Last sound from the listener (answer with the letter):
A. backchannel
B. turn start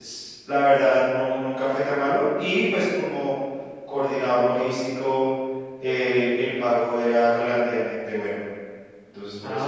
B